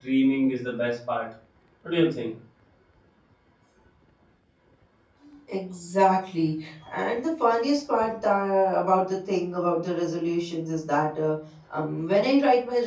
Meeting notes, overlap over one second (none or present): none